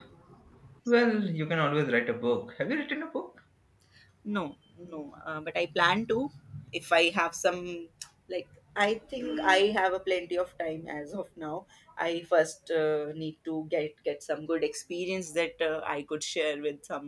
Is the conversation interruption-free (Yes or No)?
Yes